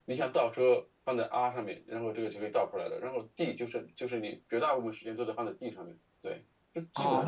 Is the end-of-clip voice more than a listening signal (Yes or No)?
Yes